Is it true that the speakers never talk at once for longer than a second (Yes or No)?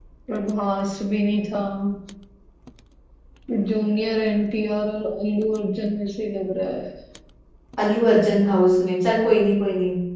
Yes